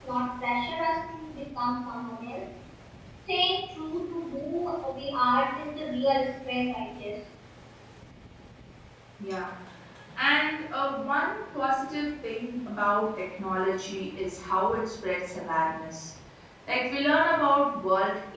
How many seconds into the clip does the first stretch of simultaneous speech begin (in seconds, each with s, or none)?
none